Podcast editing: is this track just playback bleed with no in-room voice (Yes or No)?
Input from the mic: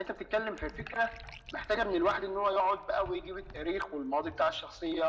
Yes